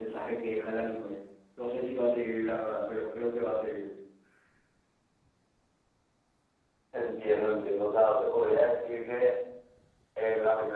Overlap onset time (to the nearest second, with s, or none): none